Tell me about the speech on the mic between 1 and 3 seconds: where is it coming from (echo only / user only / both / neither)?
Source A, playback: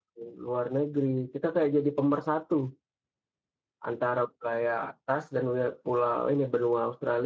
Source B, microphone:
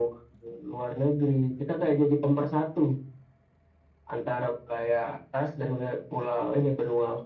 echo only